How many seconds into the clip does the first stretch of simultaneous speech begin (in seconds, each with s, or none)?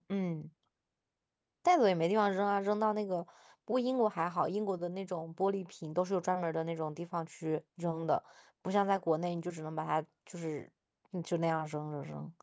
none